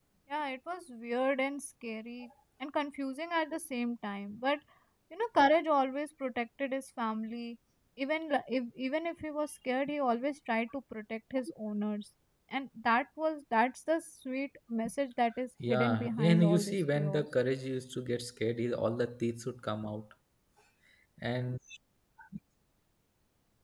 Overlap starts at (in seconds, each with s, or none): 15.6 s